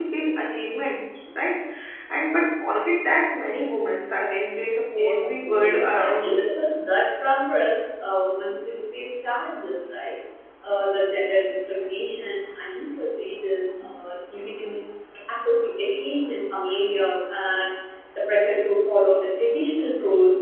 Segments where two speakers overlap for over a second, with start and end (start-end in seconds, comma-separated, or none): 5.0-6.5